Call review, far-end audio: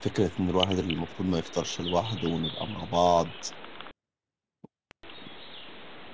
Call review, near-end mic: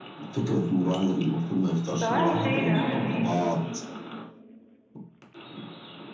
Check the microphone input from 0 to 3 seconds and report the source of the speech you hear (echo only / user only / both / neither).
both